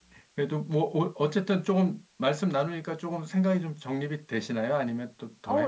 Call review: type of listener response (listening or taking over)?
taking over